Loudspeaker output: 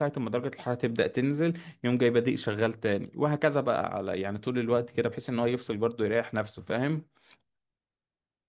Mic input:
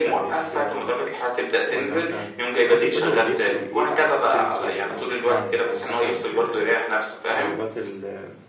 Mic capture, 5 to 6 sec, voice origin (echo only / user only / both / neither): both